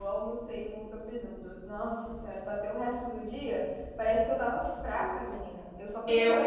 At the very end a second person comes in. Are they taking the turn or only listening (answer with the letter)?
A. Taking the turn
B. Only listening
B